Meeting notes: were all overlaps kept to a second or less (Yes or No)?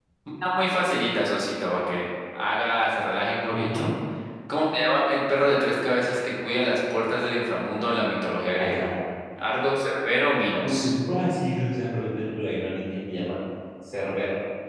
Yes